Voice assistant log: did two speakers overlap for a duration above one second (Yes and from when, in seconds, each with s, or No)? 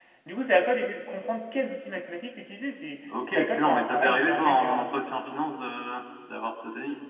Yes, from 3.1 s